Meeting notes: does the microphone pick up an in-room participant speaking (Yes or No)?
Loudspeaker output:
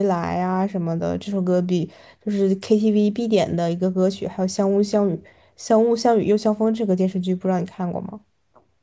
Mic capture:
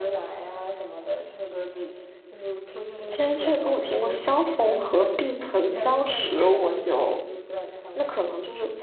Yes